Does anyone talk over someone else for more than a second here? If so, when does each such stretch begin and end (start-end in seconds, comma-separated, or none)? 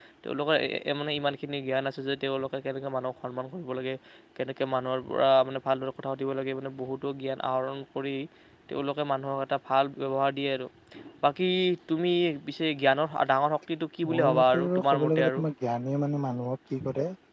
14.1-15.4